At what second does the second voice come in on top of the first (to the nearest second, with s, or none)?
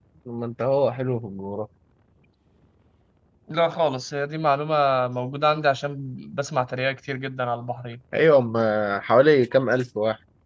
none